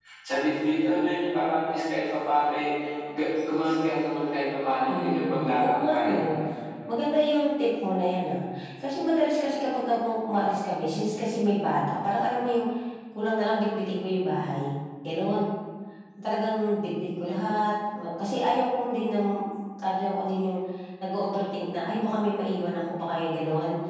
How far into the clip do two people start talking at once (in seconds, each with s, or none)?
4.9 s